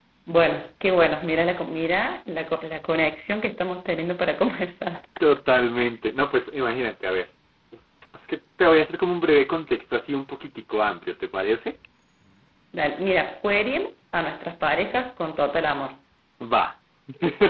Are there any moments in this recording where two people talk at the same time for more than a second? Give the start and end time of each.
none

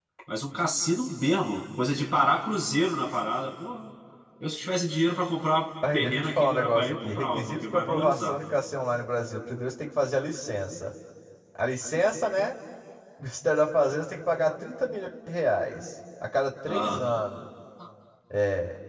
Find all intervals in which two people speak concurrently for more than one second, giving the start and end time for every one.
5.9-8.4

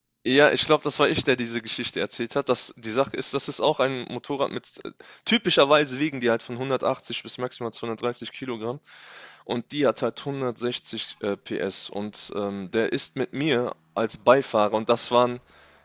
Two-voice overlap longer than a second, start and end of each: none

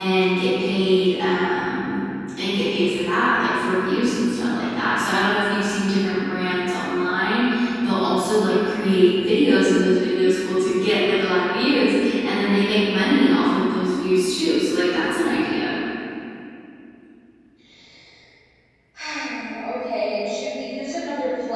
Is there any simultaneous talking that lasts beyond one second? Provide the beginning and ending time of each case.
none

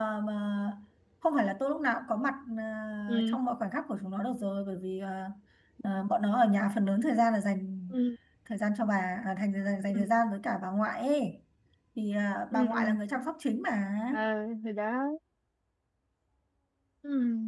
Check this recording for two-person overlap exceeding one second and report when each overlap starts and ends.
none

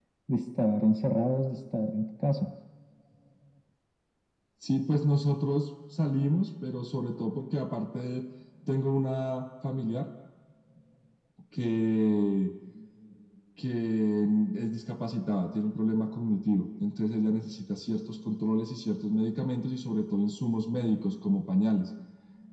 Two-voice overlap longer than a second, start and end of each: none

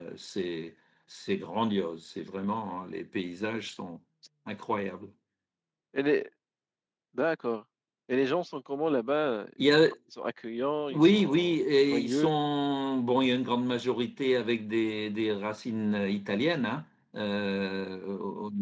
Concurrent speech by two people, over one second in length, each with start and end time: 10.9-12.4

